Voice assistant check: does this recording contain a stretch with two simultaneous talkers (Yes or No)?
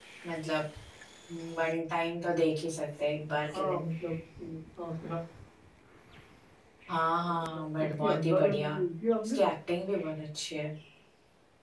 Yes